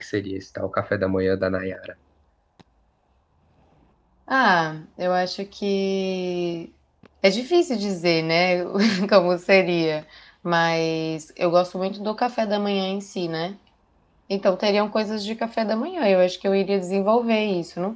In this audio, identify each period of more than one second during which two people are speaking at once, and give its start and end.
none

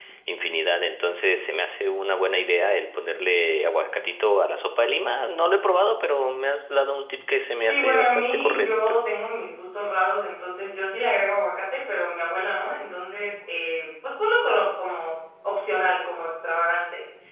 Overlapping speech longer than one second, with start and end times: 7.7-9.0

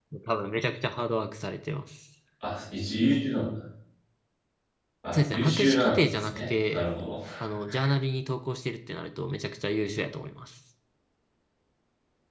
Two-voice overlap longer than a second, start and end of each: 5.1-6.8

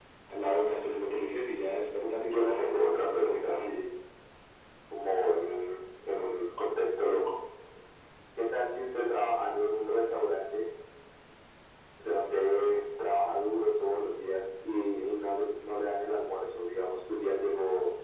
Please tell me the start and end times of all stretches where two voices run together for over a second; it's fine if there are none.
2.2-3.7

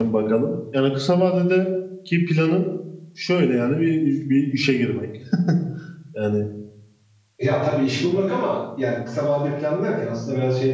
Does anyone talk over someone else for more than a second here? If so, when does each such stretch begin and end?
none

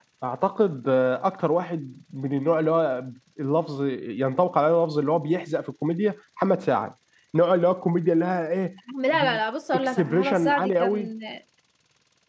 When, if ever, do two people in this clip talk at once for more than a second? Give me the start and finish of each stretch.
9.8-11.1

